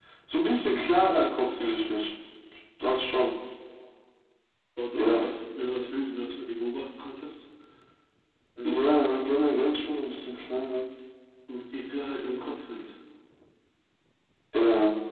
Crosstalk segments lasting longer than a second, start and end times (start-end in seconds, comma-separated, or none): 8.6-9.9